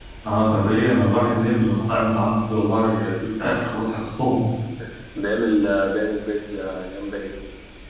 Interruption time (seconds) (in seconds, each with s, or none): none